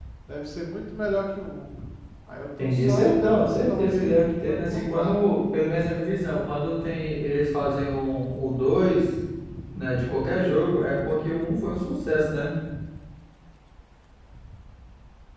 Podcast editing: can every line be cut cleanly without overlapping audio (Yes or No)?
No